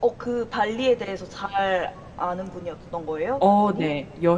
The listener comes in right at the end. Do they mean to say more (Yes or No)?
Yes